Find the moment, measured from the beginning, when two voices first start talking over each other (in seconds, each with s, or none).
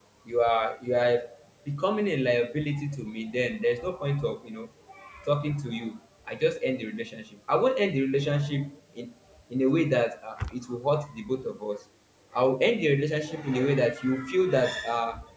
none